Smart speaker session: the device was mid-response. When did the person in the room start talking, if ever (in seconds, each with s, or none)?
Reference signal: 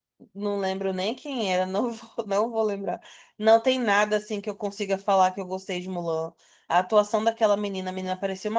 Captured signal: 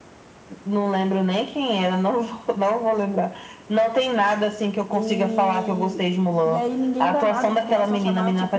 4.9 s